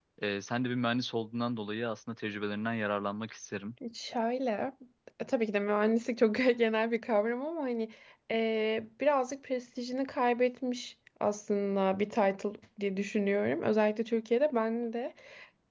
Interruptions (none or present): none